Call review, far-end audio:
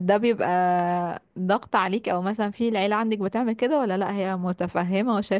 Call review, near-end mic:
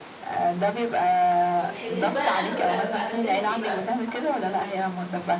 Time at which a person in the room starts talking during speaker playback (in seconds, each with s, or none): 1.6 s